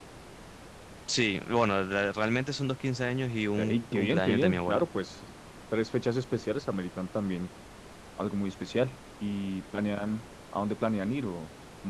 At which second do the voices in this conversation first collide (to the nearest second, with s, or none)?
4 s